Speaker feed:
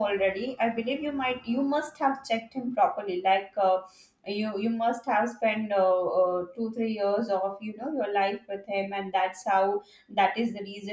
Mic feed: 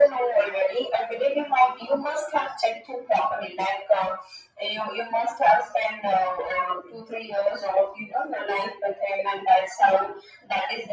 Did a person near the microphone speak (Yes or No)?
No